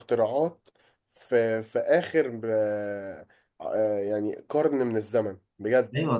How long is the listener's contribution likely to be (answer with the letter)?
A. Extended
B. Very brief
A